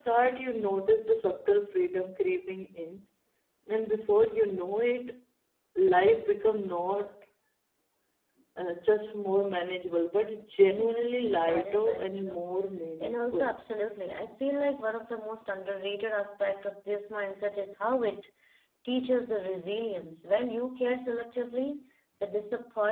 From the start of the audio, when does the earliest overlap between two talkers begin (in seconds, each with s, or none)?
10.8 s